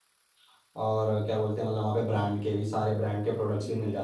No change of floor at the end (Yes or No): No